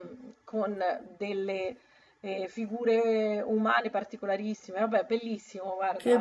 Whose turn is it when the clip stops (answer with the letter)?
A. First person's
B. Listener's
B